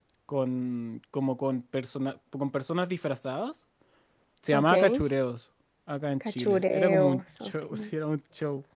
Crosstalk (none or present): present